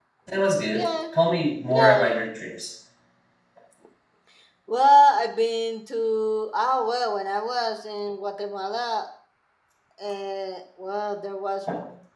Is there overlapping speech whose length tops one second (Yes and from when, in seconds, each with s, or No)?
No